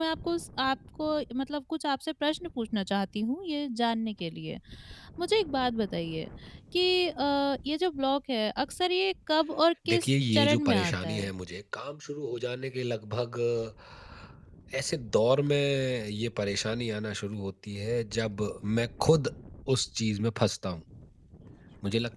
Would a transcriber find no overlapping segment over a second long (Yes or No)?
No